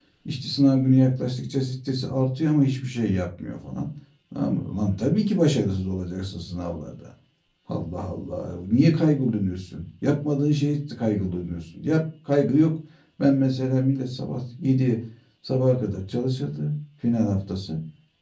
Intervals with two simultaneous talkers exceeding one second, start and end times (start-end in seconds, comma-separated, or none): none